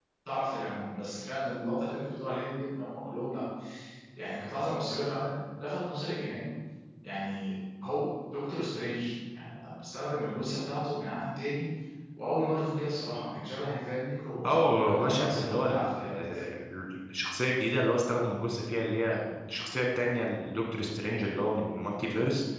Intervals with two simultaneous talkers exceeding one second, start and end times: 14.4-16.1

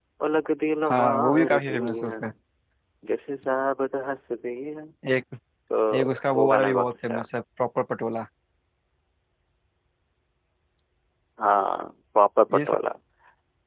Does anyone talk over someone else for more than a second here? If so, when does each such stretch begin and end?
0.9-2.2, 5.9-7.2

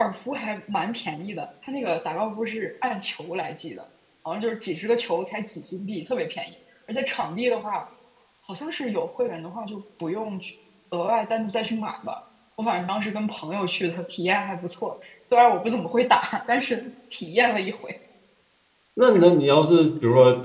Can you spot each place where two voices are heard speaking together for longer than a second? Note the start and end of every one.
none

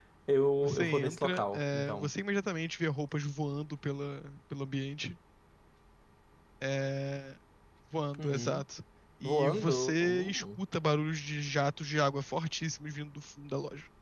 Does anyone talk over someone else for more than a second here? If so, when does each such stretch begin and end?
0.6-2.1, 9.2-10.6

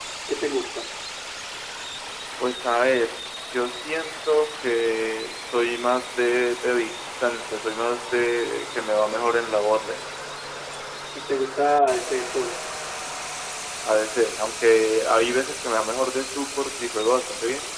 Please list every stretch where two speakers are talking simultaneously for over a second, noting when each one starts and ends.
none

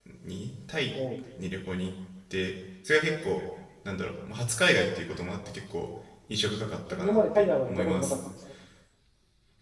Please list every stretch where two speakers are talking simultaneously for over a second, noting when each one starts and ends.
6.9-8.2

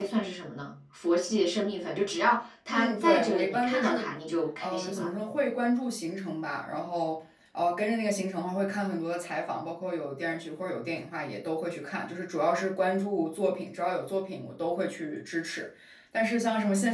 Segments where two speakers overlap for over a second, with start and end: 2.7-4.1

